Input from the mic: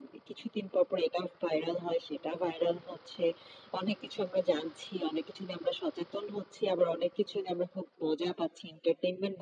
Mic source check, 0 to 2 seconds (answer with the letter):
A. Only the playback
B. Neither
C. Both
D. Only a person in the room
A